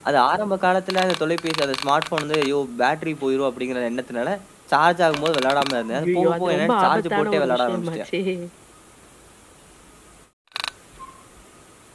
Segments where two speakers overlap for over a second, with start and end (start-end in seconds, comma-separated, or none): 6.0-8.0